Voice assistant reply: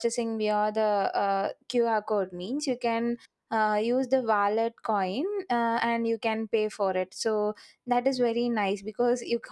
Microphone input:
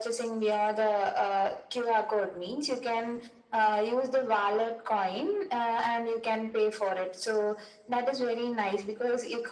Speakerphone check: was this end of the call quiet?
Yes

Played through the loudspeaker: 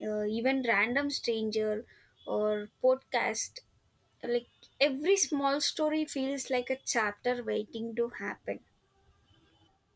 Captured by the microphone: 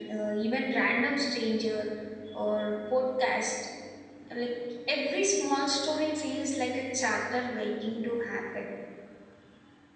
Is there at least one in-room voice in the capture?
No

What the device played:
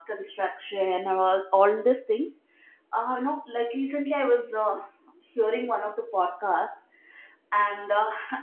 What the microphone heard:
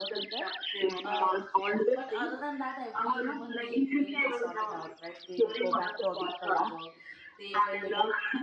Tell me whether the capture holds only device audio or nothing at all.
No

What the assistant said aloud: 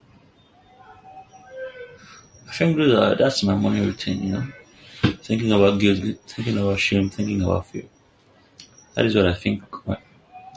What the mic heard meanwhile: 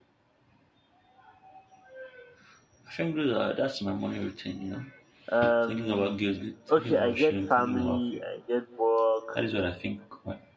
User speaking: Yes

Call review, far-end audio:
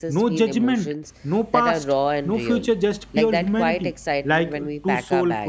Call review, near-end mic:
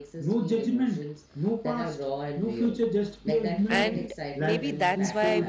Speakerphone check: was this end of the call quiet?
No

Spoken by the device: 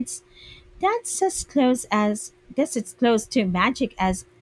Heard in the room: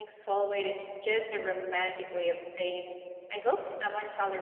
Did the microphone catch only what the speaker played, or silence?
No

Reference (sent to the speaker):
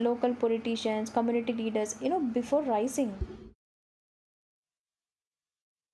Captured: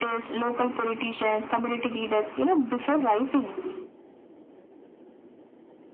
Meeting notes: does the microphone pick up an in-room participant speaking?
No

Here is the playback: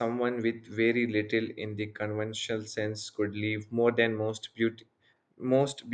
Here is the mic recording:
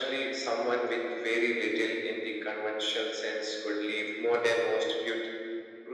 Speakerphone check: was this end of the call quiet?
Yes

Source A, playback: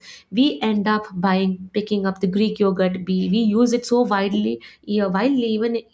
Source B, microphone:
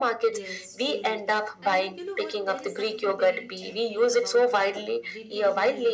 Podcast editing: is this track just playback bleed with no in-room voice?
No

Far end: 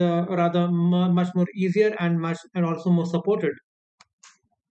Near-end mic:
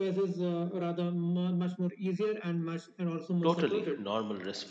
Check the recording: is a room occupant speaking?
Yes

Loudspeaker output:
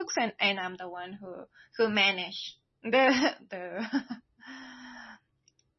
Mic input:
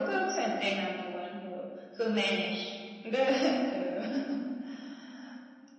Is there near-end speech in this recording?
No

